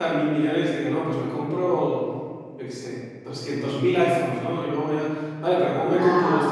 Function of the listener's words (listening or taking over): listening